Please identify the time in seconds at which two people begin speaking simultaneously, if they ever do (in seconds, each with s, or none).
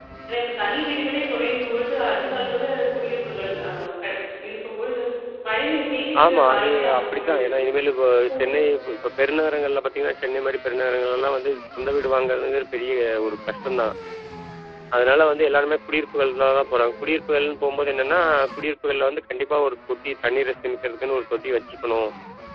6.3 s